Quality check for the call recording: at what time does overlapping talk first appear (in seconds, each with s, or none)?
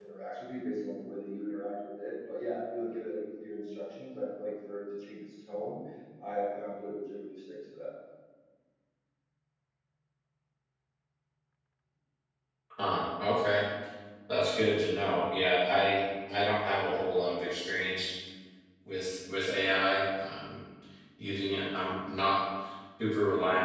none